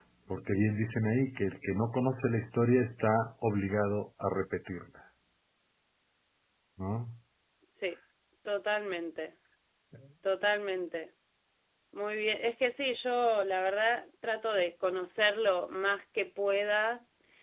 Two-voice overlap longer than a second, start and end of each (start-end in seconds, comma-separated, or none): none